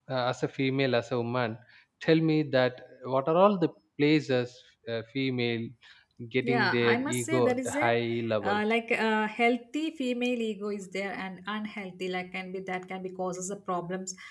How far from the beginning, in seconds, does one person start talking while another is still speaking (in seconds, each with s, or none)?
6.4 s